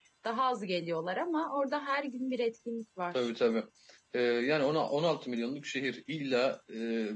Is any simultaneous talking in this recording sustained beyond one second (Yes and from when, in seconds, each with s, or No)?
No